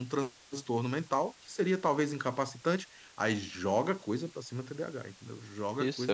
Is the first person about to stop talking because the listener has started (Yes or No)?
Yes